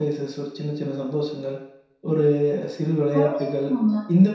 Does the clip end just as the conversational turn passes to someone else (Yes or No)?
No